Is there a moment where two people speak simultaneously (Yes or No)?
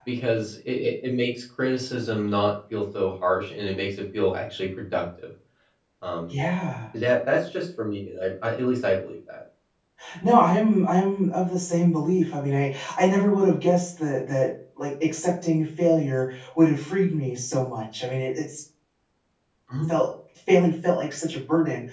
No